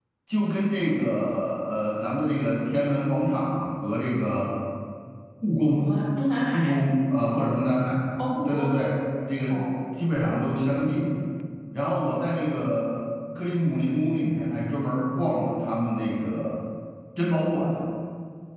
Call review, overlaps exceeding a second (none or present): none